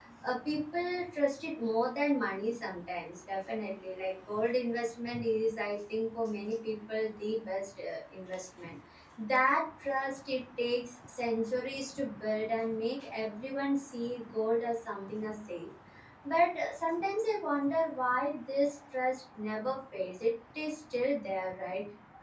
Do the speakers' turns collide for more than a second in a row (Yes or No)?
No